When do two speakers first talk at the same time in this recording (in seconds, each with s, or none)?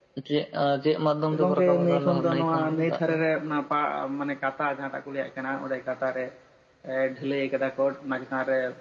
1.4 s